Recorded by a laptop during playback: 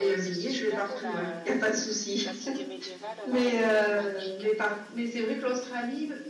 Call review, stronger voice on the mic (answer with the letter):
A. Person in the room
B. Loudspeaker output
A